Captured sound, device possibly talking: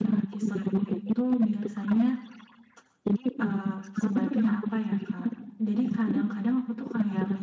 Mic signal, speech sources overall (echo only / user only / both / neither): both